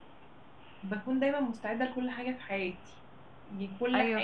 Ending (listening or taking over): listening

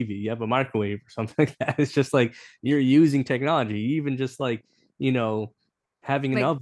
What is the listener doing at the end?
listening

